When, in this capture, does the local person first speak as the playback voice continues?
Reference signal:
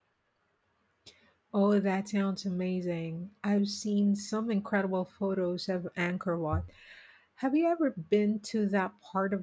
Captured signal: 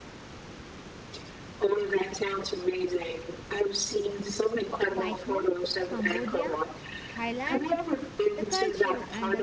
4.9 s

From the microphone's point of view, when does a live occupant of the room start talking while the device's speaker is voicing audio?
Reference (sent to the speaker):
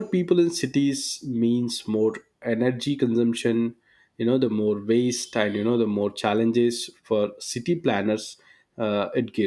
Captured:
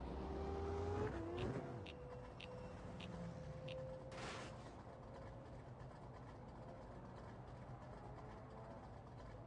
none

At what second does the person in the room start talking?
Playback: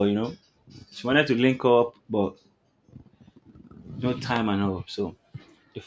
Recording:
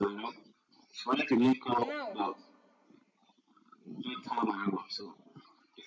1.8 s

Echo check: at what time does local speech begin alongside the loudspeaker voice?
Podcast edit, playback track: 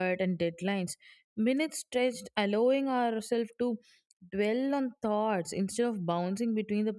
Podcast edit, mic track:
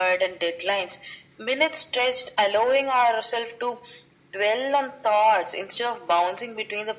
none

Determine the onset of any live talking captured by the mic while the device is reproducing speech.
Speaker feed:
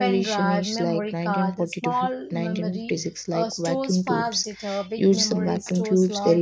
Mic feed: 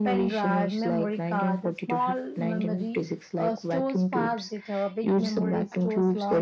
none

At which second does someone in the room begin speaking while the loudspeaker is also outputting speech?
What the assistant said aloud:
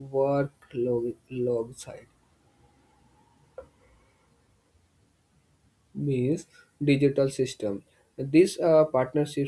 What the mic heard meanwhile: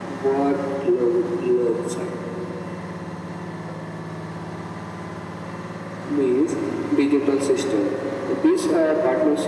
none

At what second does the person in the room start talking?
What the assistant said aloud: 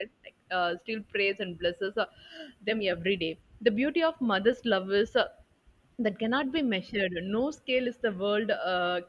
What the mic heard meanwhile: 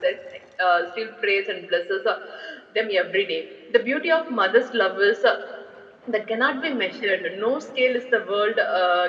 none

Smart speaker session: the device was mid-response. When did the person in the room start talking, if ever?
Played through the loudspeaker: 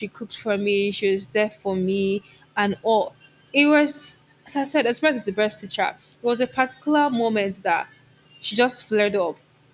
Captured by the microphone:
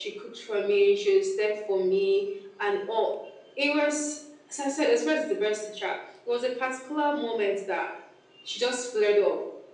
none

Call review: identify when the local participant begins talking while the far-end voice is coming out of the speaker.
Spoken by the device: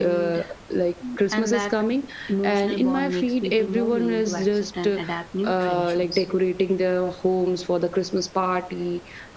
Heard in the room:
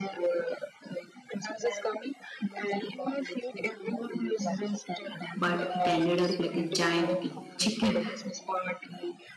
5.3 s

